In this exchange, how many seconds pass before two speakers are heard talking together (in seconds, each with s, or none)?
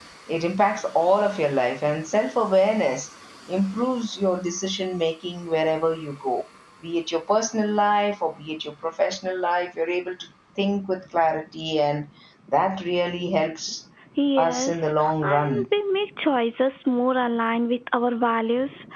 14.4 s